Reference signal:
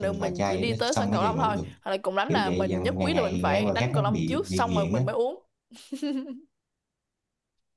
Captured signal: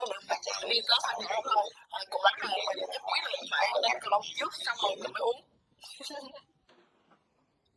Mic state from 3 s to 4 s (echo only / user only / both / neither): echo only